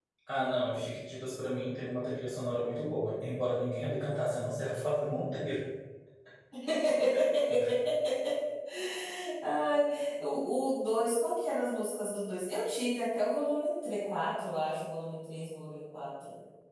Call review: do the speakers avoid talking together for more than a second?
Yes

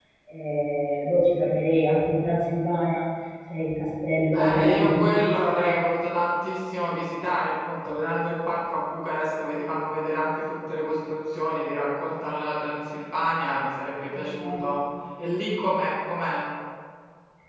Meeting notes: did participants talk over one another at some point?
Yes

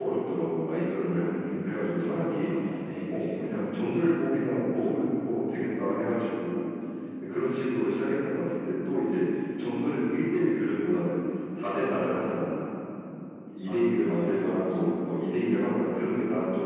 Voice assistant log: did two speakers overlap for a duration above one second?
Yes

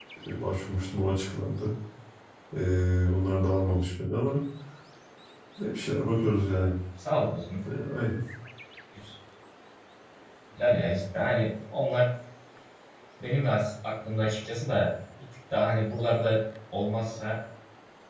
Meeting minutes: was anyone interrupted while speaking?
No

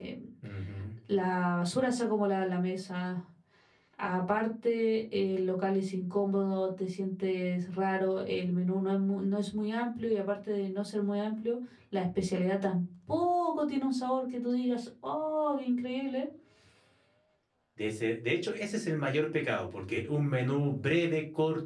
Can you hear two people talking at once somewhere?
No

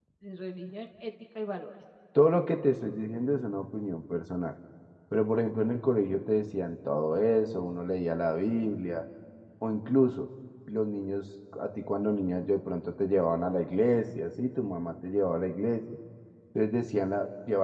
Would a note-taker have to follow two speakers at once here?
No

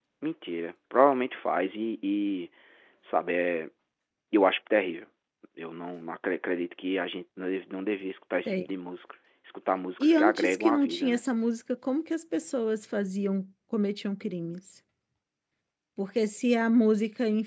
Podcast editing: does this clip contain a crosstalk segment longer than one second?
Yes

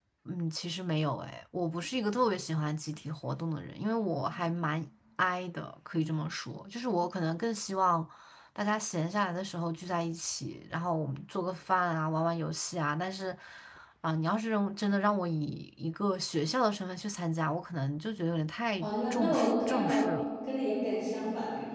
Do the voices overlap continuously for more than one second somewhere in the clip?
Yes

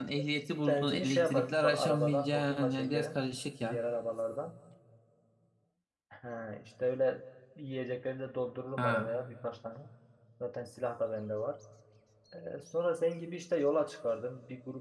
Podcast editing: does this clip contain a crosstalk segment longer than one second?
Yes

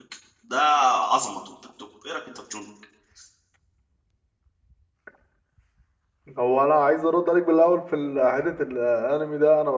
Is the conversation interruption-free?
Yes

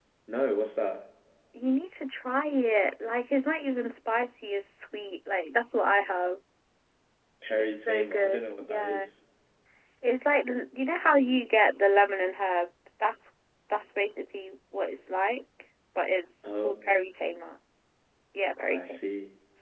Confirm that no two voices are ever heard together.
No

